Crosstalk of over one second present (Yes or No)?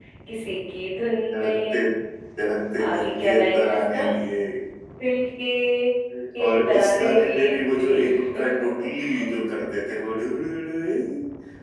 Yes